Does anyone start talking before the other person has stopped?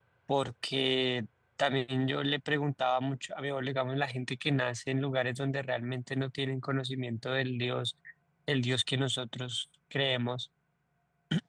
No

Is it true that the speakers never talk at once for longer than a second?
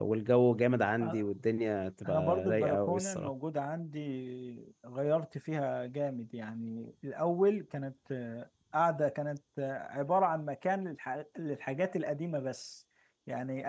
No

